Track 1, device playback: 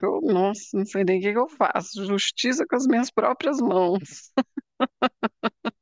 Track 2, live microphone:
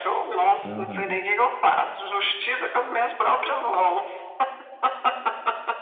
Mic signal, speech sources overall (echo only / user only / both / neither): both